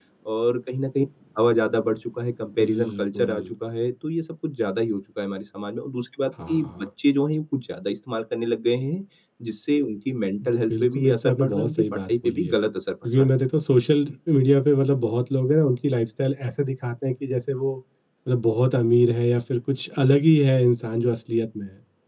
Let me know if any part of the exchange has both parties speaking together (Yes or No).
Yes